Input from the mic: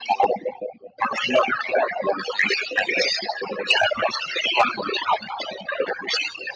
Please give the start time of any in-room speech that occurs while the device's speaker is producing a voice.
none

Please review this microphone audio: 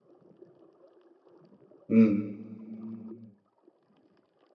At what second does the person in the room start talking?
2 s

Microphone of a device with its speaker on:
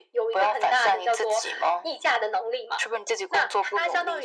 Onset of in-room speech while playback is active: none

